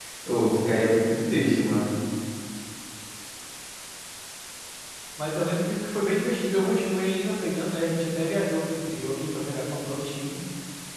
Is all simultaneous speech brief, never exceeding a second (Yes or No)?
Yes